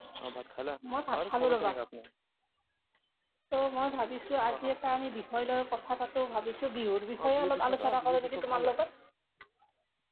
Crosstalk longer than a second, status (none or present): present